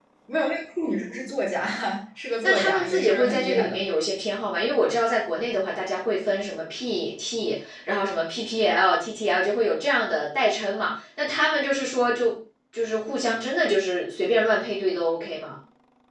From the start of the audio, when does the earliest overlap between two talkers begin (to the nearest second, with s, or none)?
2 s